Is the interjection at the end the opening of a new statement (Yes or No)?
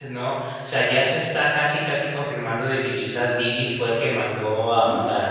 Yes